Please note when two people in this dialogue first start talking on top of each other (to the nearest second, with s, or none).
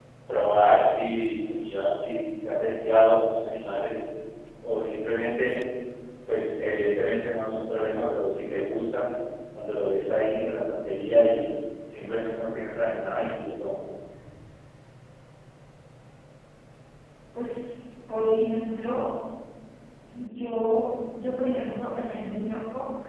none